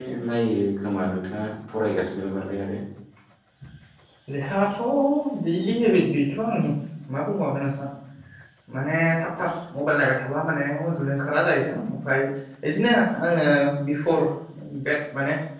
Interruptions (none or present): none